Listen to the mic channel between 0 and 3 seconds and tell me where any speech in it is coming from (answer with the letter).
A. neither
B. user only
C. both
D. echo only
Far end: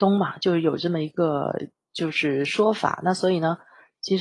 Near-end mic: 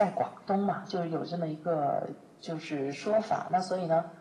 D